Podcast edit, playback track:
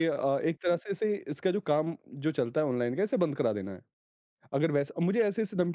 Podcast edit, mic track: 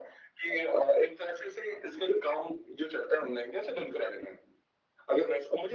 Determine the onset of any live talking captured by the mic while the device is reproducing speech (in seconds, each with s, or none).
none